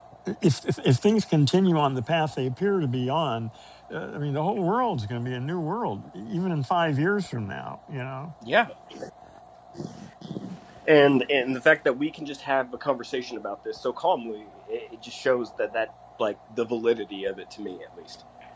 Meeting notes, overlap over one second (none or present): none